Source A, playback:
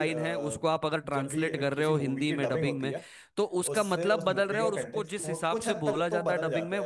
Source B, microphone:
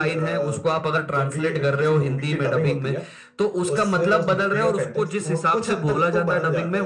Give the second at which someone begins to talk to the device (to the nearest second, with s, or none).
none